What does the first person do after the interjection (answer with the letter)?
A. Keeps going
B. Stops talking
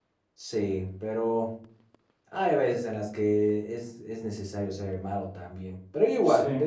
A